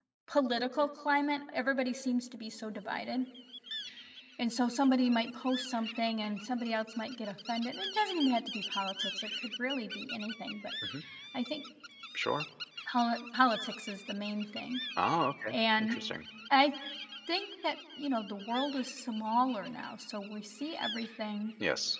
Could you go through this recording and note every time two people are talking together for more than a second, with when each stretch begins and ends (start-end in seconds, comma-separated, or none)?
none